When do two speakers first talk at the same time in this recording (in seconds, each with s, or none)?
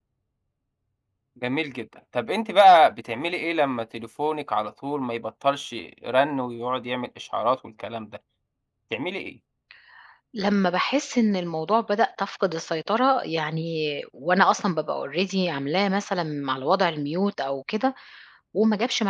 none